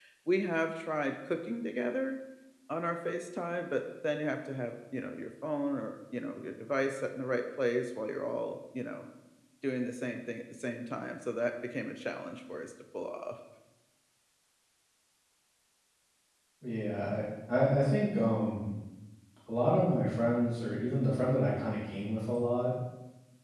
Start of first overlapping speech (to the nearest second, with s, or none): none